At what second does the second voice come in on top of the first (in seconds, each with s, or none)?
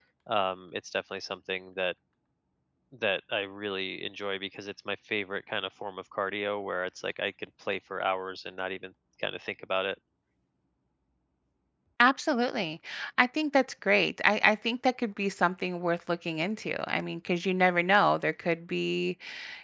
none